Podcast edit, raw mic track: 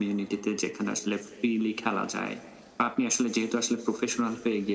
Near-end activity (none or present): none